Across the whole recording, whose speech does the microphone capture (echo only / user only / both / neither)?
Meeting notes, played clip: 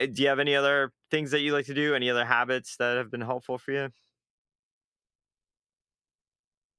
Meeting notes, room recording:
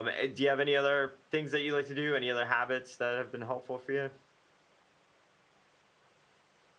echo only